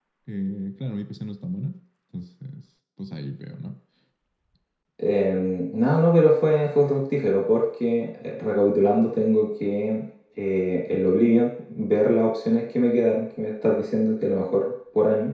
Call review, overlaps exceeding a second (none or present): none